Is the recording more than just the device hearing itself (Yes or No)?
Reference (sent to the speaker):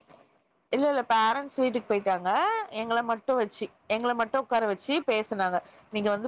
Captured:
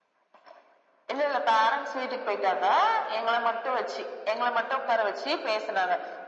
No